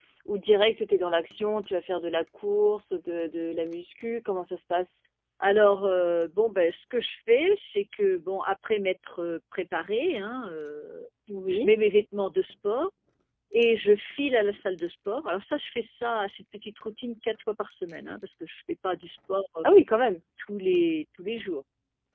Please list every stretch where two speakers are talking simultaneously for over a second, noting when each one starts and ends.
none

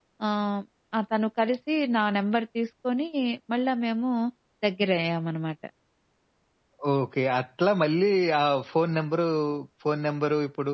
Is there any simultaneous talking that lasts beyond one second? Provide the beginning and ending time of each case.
none

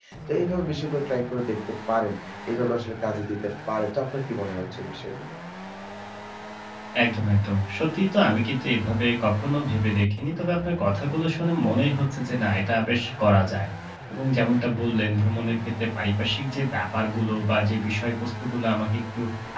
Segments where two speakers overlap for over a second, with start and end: none

